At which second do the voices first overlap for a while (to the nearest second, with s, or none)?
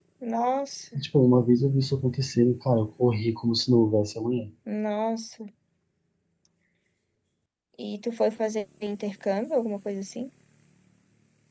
none